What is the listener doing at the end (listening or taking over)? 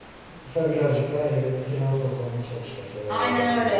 taking over